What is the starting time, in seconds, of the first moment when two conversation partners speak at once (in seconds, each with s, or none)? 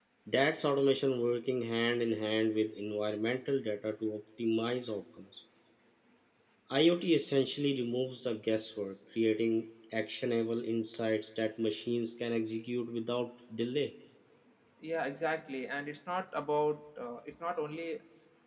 none